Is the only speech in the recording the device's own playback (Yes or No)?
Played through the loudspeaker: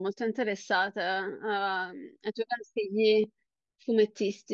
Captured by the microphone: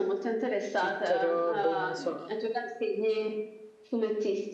No